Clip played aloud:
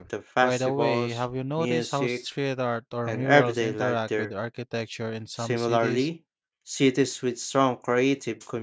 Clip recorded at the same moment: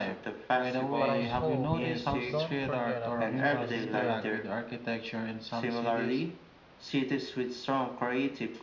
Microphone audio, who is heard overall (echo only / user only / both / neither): both